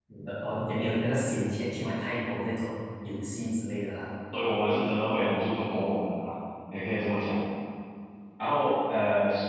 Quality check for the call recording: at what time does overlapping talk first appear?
none

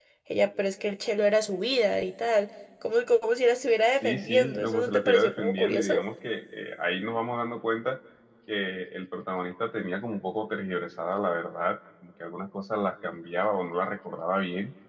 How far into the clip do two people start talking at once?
4.0 s

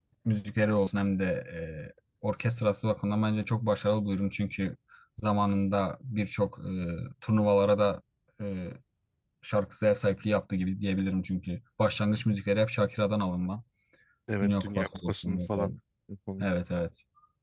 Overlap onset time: 14.4 s

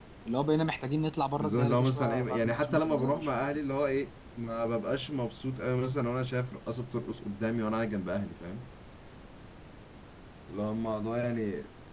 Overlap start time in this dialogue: 1.4 s

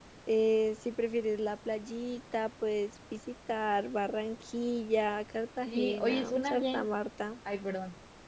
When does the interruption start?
5.7 s

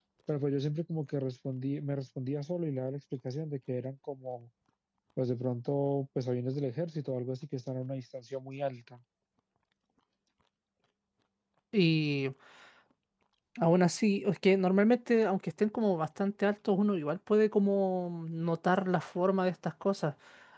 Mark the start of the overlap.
none

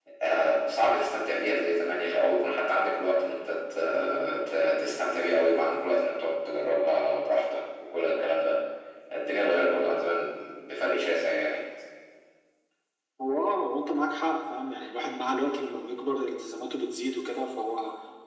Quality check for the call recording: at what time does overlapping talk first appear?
none

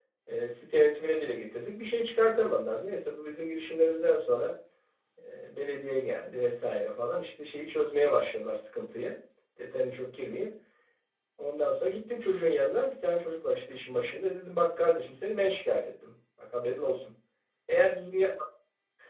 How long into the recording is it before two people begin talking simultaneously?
none

